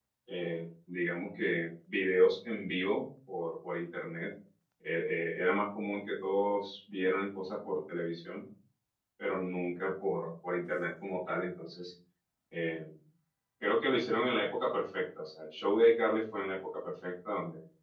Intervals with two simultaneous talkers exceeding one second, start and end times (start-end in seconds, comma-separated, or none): none